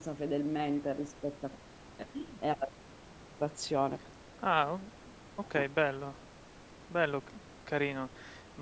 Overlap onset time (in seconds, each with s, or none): none